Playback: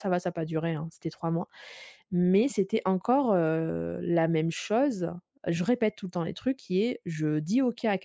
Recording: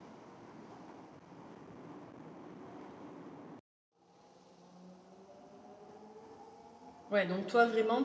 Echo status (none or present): none